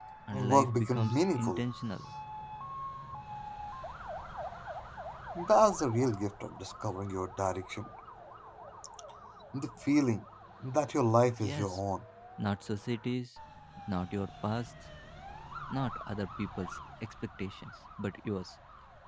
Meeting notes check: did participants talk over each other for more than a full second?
Yes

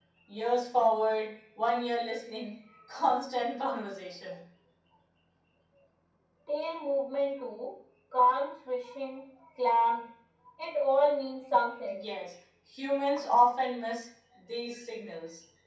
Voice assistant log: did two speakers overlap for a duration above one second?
No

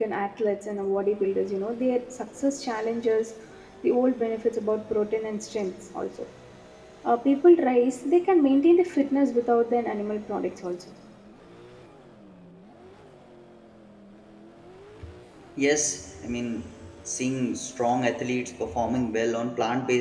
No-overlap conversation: Yes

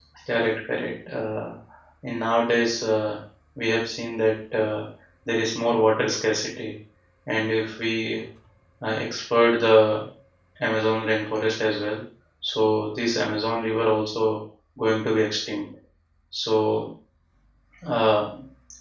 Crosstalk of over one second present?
No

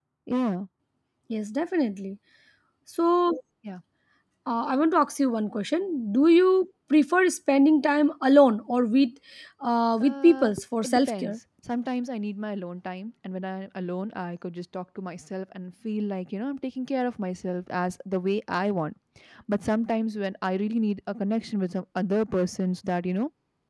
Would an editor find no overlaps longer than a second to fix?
No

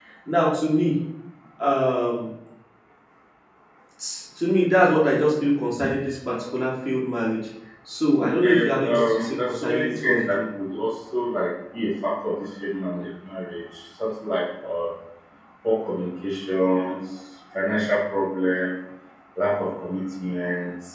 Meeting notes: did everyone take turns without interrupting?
No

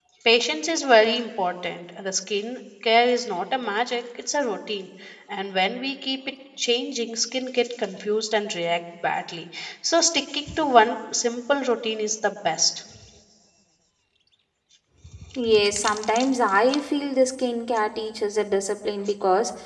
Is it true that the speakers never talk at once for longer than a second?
Yes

